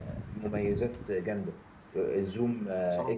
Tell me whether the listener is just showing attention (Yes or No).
Yes